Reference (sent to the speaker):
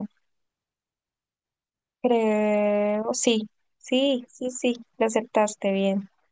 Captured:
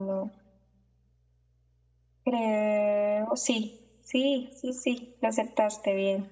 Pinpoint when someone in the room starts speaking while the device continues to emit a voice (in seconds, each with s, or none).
none